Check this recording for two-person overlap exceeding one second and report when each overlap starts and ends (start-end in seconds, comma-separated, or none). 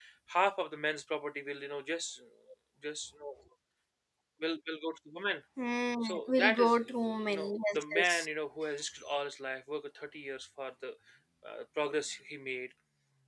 6.0-8.3